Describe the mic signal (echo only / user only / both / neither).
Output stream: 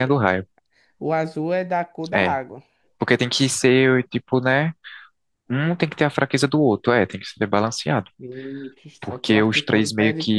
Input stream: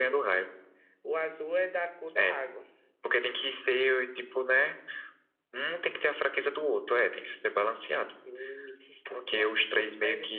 echo only